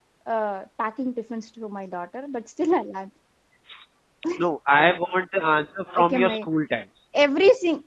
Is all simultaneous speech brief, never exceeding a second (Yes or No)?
Yes